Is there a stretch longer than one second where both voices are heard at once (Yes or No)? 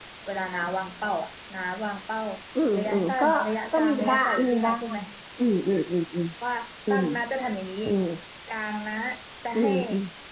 Yes